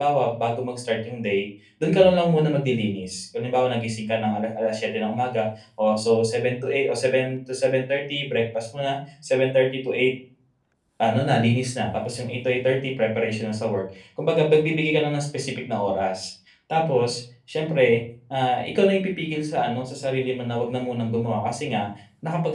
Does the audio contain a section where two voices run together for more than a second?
No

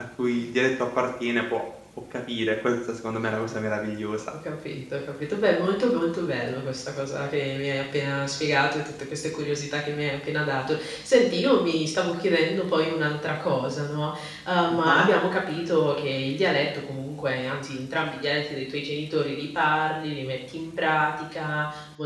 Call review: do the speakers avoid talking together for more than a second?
Yes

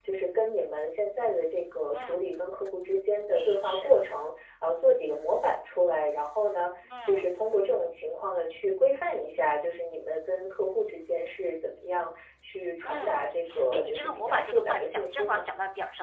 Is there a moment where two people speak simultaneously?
Yes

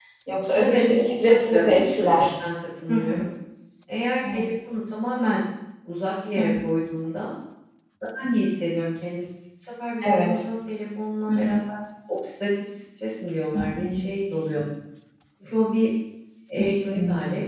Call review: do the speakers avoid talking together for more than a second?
No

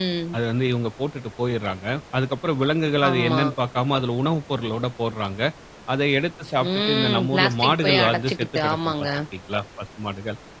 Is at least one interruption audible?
Yes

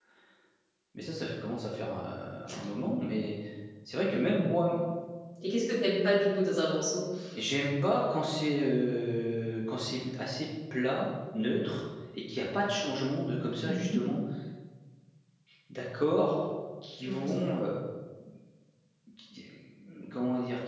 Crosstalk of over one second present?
No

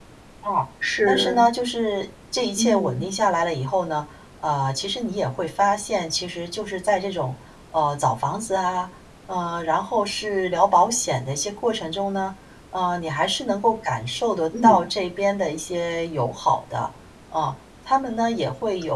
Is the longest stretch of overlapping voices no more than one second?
Yes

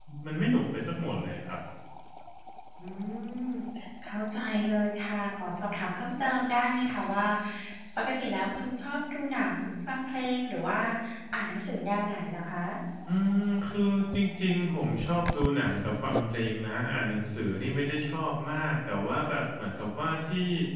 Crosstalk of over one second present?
No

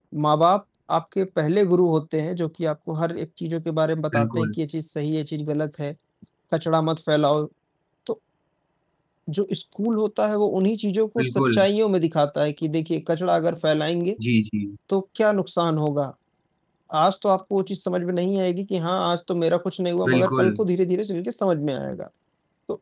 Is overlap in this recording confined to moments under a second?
Yes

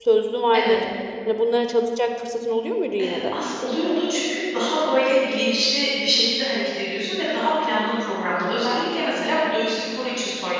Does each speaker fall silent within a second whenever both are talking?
Yes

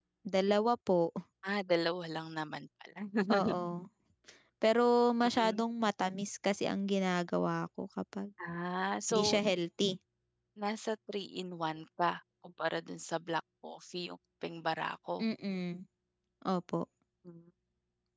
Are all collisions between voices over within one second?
Yes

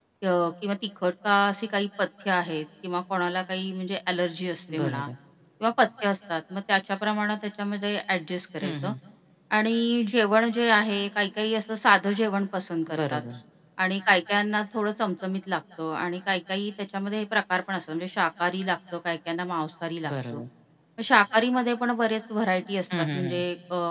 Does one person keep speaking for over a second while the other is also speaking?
No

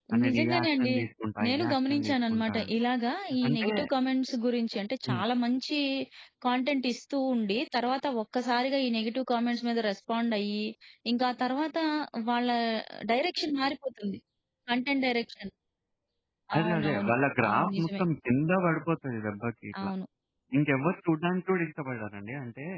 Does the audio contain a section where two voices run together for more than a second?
Yes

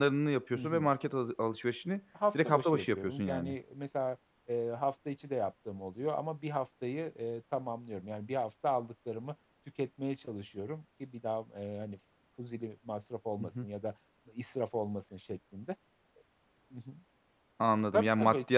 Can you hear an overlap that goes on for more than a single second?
Yes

